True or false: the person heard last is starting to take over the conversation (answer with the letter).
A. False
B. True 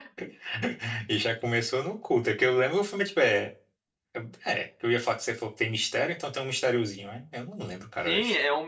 B